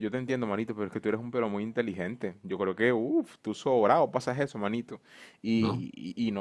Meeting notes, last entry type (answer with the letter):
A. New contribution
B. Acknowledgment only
B